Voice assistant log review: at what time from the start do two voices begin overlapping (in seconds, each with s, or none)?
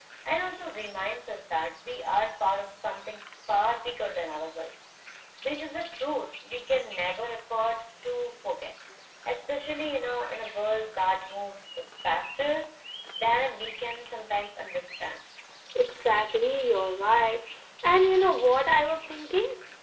none